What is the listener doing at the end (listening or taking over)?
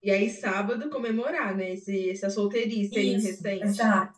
taking over